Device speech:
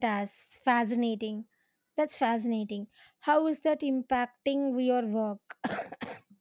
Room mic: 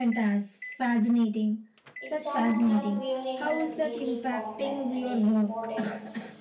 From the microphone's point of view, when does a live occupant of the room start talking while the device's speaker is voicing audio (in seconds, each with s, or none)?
2.0 s